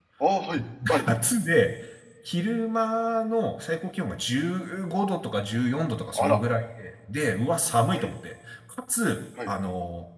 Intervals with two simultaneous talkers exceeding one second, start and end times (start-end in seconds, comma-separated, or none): none